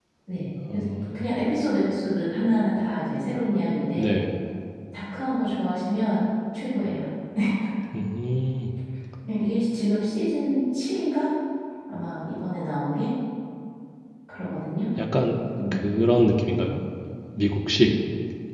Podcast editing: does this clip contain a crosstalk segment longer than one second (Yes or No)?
No